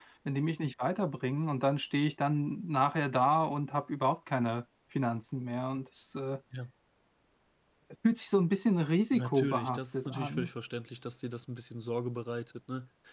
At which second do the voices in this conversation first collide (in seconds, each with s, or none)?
9.1 s